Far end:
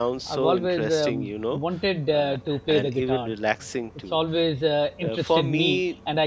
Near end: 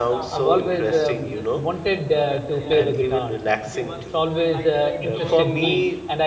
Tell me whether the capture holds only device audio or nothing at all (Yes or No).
No